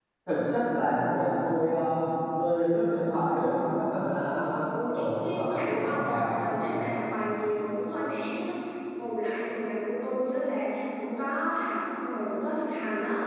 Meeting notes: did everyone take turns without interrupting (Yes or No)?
No